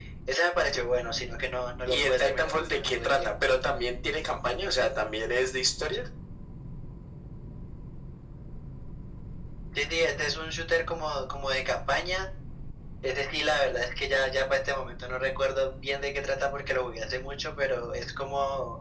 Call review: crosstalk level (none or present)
present